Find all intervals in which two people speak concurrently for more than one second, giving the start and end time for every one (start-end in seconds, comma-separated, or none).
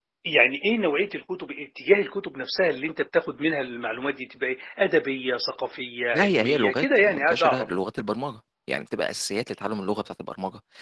6.1-7.7